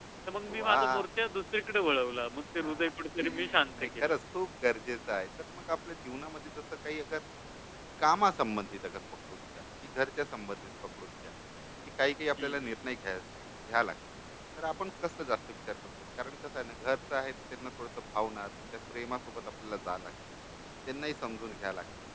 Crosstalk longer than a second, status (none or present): none